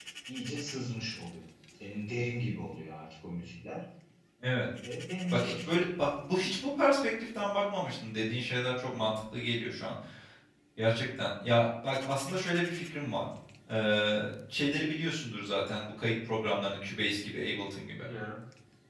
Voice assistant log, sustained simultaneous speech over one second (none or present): none